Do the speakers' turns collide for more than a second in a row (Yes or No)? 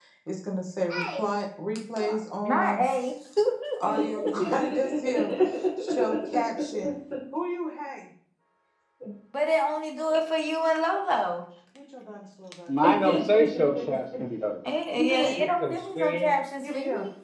Yes